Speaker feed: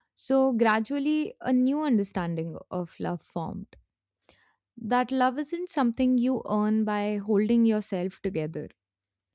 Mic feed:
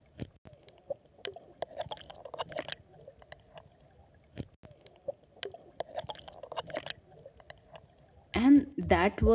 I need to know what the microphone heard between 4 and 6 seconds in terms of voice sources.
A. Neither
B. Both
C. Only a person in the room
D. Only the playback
A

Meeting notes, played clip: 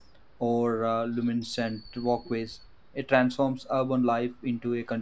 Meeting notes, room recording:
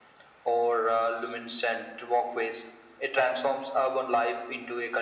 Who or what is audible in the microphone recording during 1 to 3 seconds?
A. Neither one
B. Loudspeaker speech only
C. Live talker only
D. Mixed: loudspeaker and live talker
B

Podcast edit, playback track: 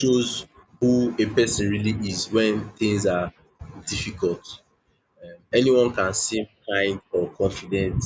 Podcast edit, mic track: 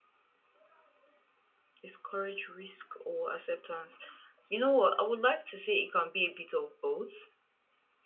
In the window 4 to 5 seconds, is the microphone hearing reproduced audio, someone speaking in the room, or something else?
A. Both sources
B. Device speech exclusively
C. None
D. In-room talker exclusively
D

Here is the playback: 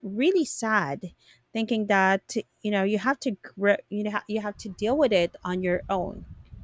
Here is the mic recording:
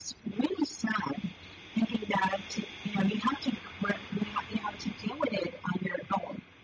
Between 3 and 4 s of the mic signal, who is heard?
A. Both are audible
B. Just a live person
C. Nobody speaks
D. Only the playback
D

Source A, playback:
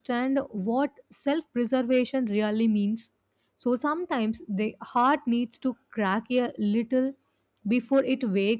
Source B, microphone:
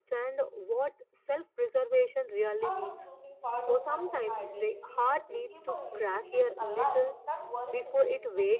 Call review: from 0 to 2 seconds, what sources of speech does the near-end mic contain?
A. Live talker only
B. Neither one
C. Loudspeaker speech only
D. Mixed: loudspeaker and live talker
C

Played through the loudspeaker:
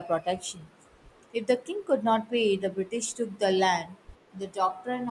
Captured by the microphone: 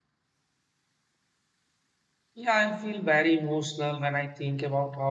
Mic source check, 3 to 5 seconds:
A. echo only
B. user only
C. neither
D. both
B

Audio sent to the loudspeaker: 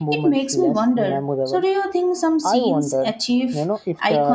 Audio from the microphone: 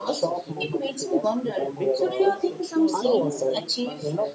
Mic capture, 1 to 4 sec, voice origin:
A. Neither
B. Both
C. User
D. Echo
B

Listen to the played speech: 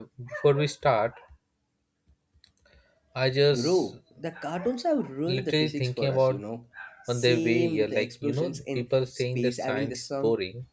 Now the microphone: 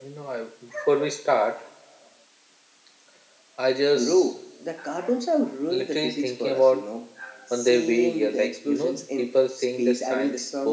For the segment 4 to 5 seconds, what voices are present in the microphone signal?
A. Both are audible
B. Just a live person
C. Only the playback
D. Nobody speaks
C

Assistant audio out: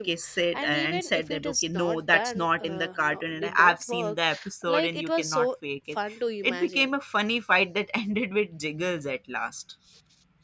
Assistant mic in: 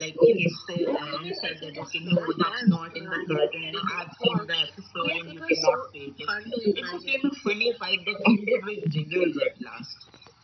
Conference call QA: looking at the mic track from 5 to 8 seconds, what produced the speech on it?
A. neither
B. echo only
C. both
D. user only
B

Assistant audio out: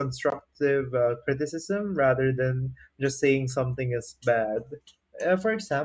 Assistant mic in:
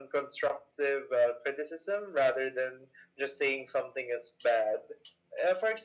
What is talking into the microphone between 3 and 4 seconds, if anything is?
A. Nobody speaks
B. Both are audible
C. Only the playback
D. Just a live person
C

